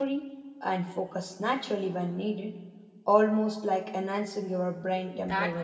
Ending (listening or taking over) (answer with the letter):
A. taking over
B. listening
A